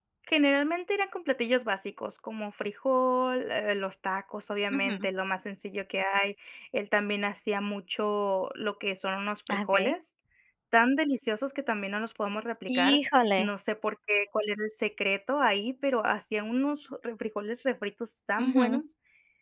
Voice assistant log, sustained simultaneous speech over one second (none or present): none